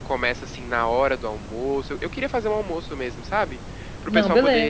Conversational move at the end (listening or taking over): listening